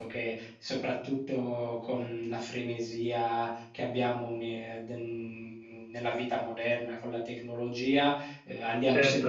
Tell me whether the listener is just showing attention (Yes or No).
Yes